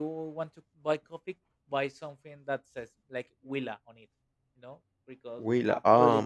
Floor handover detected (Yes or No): Yes